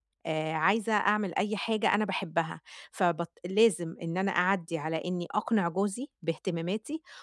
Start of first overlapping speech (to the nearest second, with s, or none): none